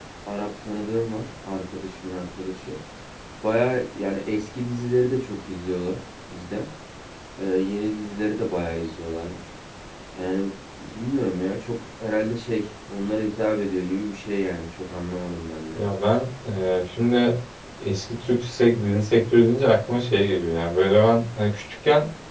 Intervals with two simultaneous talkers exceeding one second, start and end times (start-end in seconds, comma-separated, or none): none